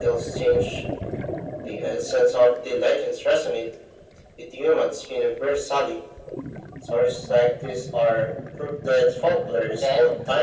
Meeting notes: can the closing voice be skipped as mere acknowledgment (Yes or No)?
No